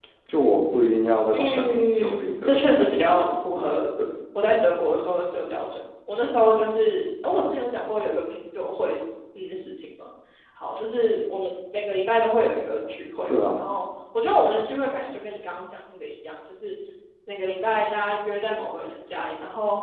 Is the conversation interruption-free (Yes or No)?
No